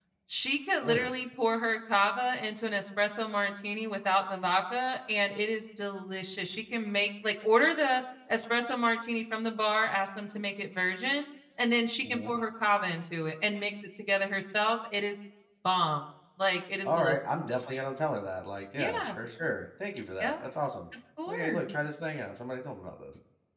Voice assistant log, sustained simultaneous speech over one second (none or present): none